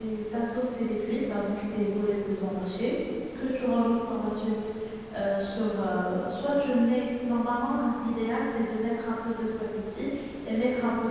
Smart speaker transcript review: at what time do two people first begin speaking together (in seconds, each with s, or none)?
none